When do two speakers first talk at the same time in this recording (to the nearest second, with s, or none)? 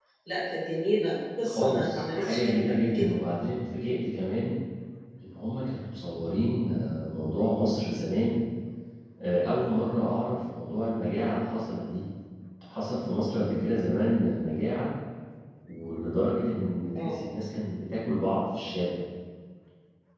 1 s